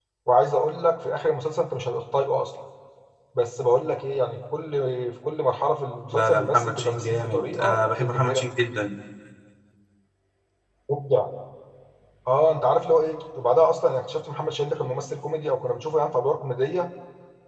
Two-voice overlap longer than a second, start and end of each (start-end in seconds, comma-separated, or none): 6.1-8.5